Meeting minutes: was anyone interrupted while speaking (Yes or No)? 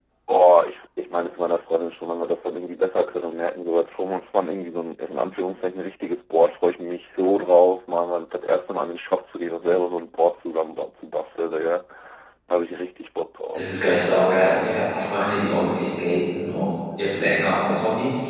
No